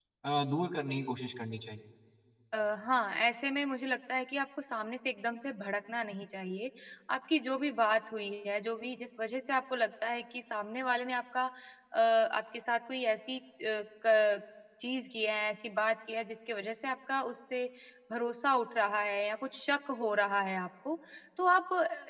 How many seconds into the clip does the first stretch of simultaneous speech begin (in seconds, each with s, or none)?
none